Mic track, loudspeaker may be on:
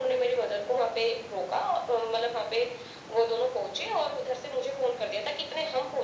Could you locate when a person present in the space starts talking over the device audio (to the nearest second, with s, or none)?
none